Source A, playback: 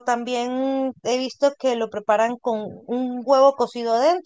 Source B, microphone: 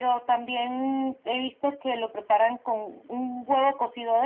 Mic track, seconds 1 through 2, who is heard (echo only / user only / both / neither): echo only